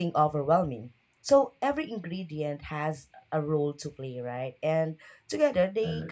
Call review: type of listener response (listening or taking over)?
listening